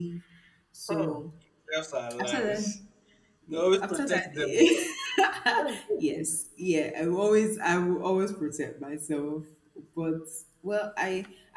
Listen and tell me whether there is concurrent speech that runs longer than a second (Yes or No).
Yes